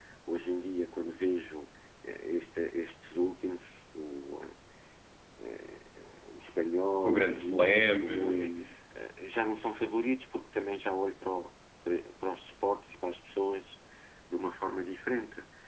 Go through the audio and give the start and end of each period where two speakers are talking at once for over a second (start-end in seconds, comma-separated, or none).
7.0-8.5